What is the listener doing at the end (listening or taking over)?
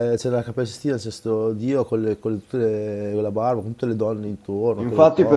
taking over